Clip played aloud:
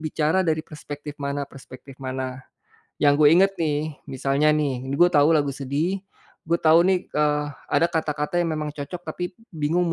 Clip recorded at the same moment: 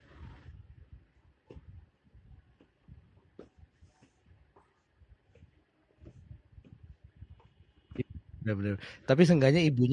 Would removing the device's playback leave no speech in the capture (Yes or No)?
No